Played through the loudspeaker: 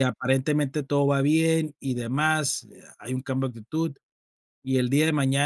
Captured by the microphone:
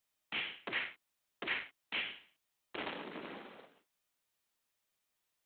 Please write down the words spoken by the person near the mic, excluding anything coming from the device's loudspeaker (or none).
none